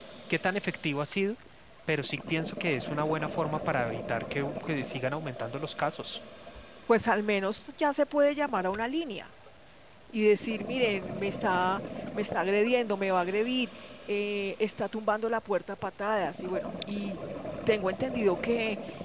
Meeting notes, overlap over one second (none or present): none